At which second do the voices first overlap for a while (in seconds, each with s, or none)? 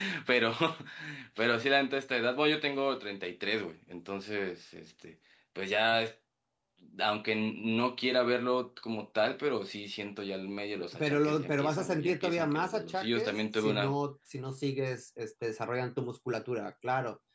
10.8 s